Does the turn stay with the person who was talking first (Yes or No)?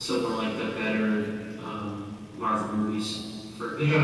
No